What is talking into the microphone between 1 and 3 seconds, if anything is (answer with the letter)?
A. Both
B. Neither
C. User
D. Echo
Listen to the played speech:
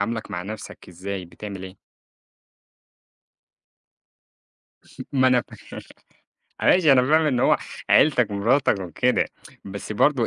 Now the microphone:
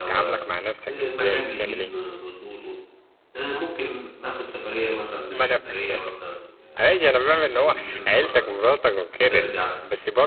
A